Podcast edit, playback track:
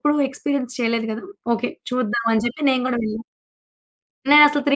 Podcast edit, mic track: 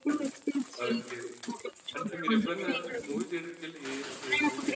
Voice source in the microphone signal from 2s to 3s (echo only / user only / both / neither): both